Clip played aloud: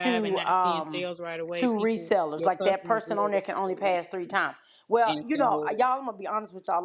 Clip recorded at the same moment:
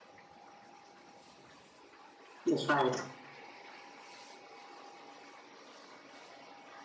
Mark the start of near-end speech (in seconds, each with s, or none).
2.4 s